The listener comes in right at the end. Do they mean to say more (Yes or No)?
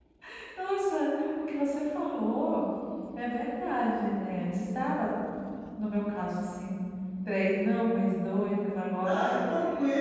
Yes